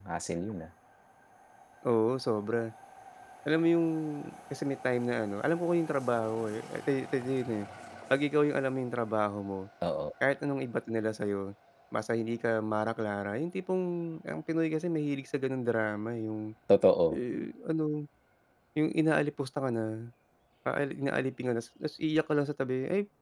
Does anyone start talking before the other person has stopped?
No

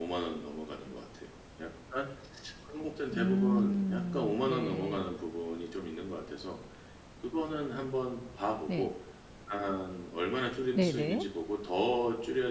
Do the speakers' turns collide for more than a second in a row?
Yes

